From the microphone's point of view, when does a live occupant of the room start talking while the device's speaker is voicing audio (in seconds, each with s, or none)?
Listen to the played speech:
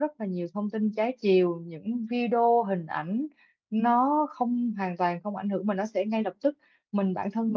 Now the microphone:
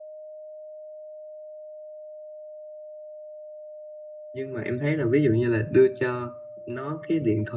4.3 s